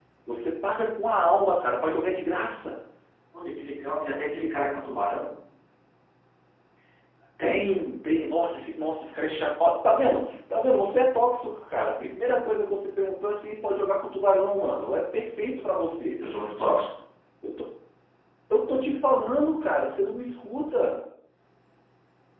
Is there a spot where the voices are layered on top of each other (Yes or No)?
No